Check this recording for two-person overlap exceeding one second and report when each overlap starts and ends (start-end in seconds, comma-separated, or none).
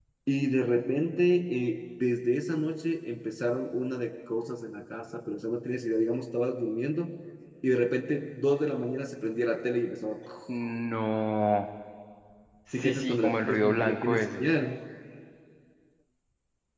12.7-14.4